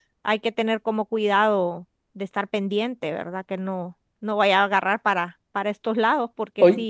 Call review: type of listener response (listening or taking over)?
taking over